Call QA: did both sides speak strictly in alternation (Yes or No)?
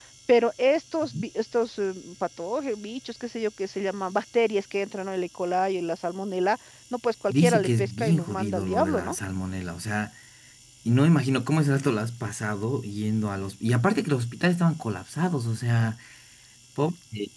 No